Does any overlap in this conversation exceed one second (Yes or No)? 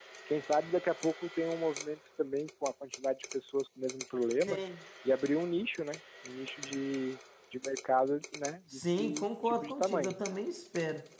Yes